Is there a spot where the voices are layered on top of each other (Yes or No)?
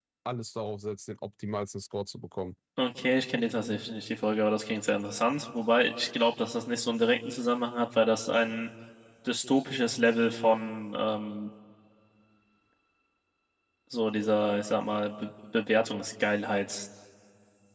No